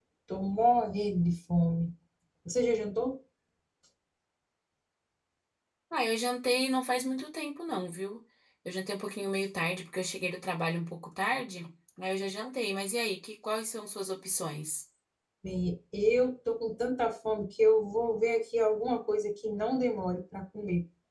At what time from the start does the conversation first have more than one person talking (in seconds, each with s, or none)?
none